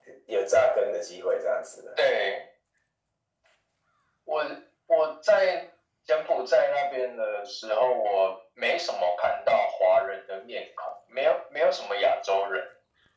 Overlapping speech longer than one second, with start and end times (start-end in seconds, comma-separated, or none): none